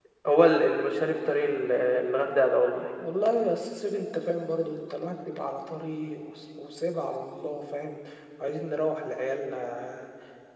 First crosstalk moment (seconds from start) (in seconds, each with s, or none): none